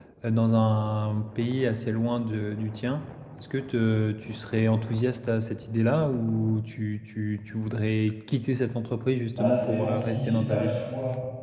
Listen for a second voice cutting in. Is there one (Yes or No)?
Yes